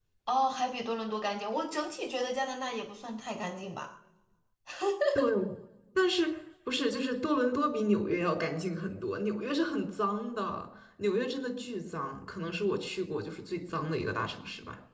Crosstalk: none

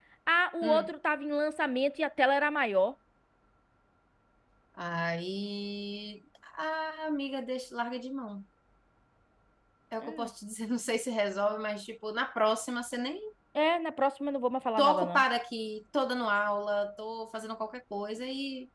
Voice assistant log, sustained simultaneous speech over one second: none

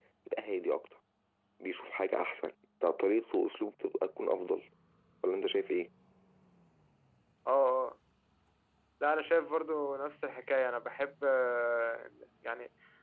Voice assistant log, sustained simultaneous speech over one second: none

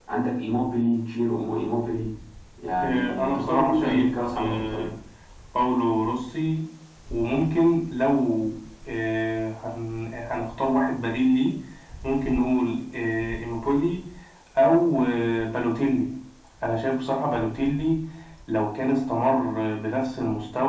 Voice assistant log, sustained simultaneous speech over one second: present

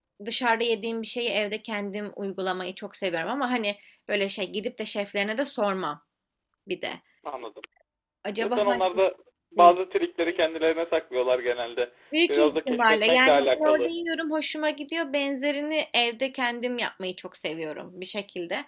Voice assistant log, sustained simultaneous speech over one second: present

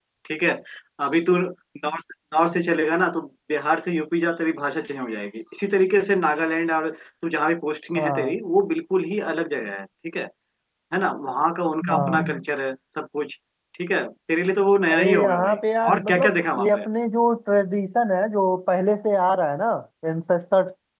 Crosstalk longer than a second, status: present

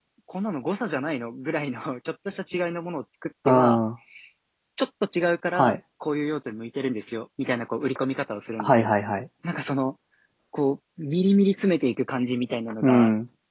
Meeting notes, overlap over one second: none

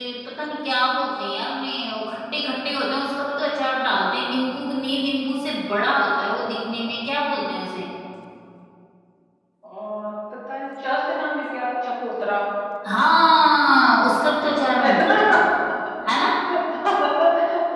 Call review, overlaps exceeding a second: none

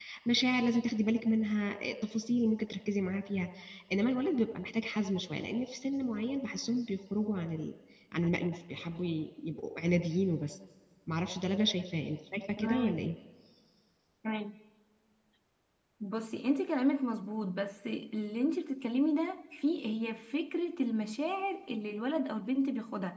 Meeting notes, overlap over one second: none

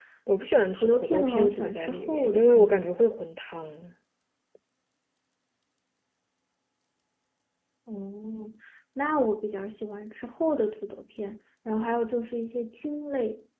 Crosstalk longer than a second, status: present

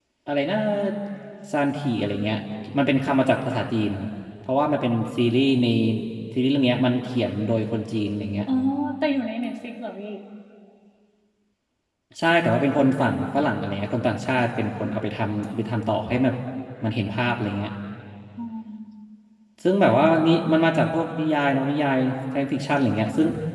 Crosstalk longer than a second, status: none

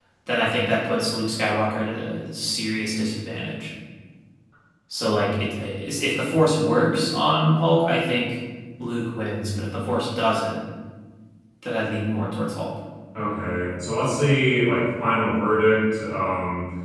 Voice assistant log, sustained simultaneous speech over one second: none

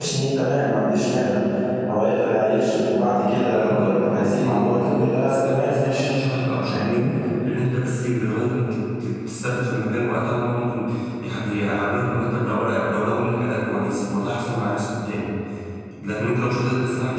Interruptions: present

